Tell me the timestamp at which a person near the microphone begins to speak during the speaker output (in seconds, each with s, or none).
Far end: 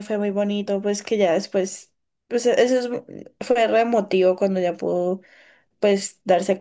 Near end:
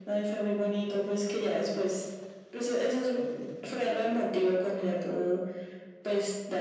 none